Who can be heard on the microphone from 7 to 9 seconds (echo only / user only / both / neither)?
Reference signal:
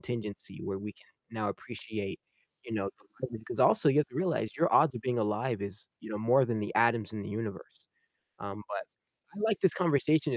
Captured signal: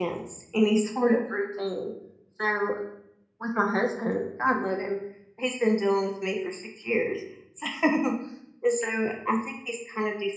user only